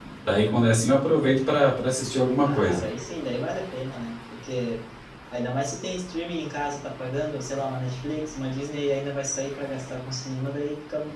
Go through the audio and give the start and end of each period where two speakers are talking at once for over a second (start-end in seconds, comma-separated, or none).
none